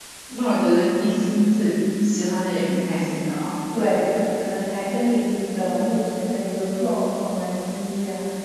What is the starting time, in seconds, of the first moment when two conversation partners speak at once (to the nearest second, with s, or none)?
none